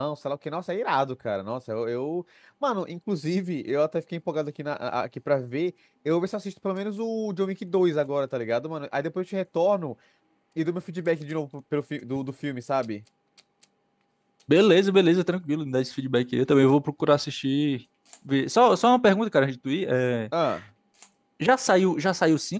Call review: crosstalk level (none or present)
none